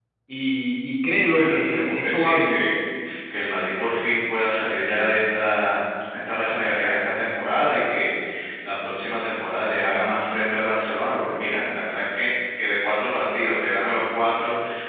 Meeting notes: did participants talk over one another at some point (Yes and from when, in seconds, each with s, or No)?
Yes, from 1.3 s